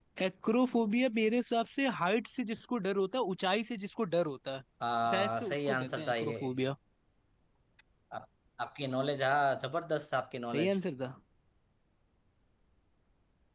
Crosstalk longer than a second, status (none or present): present